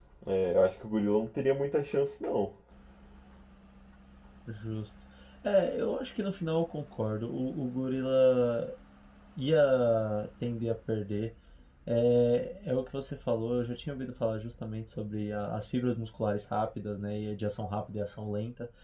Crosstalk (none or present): none